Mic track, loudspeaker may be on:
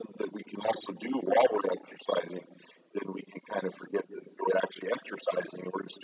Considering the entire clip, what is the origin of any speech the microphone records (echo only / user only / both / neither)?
echo only